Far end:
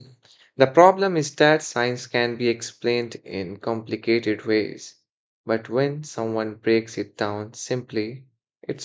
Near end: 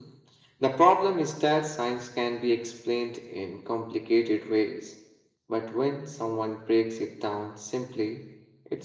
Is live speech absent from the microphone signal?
Yes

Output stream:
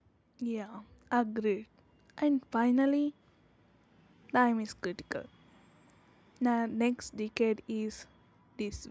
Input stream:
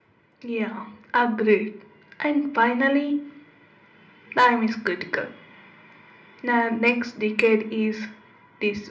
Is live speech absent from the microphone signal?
Yes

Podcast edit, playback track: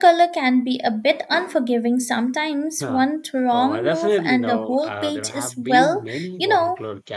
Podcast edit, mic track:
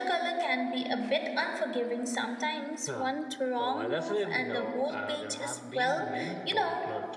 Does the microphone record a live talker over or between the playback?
No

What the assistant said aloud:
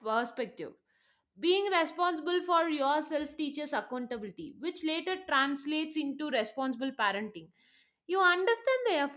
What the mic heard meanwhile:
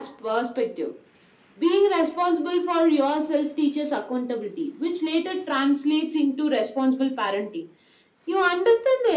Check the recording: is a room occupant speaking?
No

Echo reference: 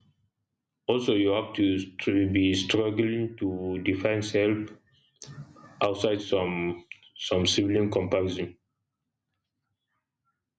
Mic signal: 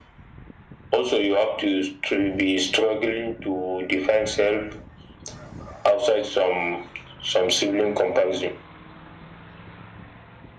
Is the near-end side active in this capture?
No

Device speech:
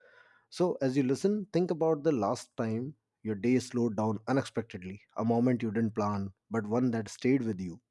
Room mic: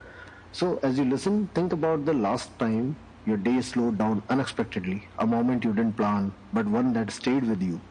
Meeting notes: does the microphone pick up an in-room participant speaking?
No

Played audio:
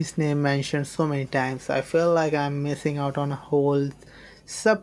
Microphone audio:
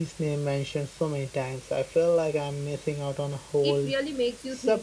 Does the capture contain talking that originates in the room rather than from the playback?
Yes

